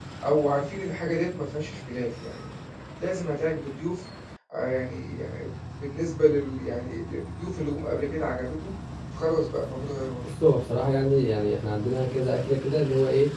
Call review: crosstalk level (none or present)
none